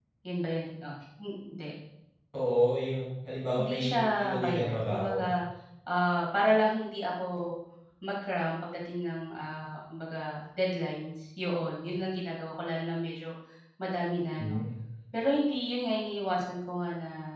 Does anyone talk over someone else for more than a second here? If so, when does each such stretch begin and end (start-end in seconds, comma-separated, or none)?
3.6-5.3